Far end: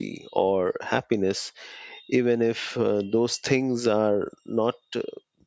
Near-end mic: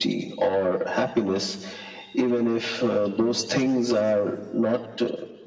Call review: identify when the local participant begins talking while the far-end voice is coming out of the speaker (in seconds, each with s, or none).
none